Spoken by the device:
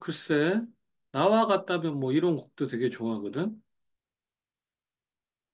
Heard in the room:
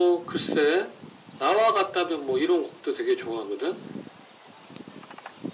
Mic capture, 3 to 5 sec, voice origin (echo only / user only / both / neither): echo only